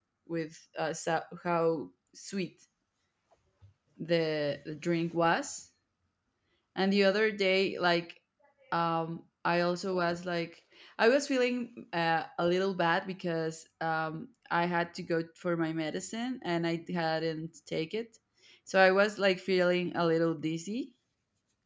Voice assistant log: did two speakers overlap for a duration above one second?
No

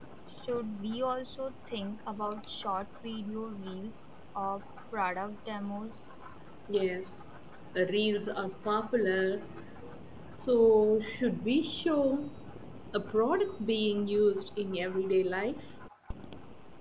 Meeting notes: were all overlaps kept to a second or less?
Yes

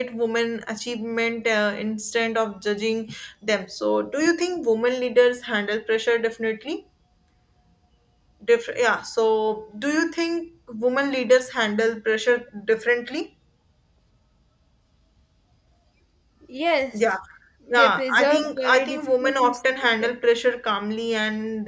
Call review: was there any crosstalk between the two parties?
Yes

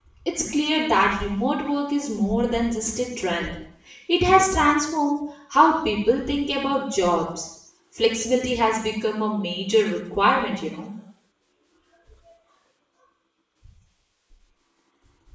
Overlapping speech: No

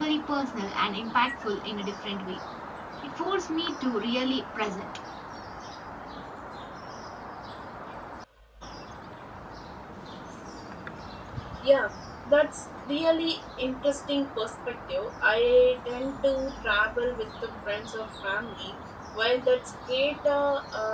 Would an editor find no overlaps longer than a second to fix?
Yes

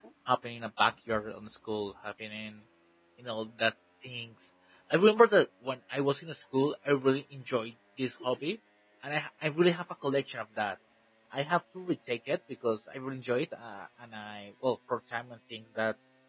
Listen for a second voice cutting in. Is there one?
No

